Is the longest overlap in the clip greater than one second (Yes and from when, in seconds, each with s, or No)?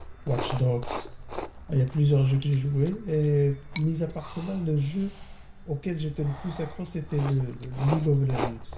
No